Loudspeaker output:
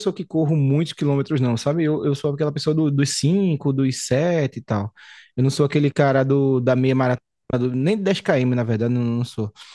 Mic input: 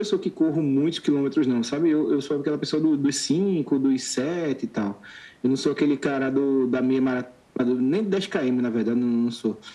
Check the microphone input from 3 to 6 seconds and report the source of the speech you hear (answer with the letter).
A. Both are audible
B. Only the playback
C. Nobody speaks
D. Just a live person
B